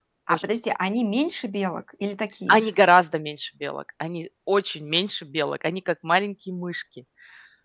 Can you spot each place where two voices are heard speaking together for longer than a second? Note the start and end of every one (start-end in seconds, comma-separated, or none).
none